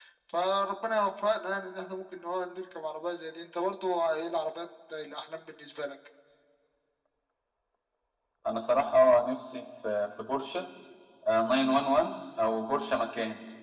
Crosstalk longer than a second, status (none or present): none